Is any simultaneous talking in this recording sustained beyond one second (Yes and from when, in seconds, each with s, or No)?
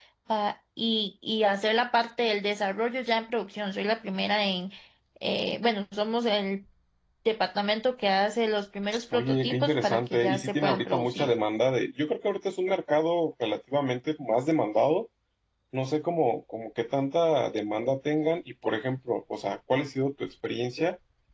Yes, from 9.1 s